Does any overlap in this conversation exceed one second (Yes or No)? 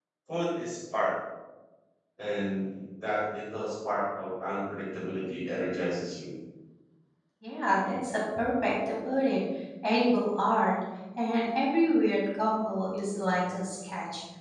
No